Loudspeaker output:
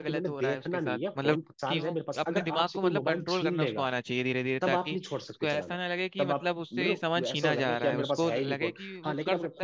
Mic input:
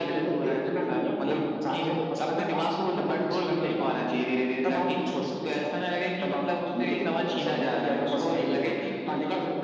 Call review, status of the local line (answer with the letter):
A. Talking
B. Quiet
B